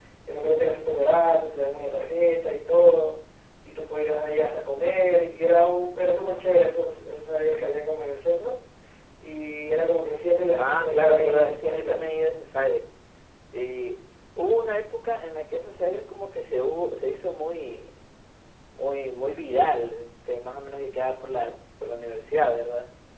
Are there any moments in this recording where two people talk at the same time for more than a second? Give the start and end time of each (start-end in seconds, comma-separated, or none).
10.6-12.0